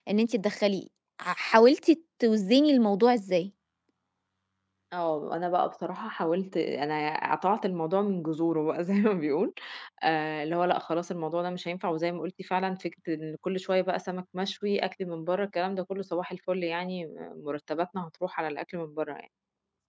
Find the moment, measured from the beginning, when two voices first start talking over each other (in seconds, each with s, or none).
none